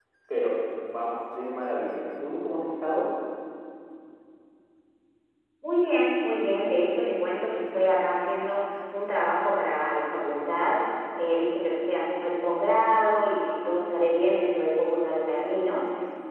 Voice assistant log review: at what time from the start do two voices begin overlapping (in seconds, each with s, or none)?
none